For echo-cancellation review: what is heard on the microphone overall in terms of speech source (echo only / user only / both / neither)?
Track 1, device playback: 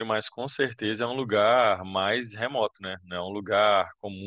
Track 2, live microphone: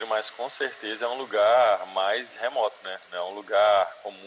echo only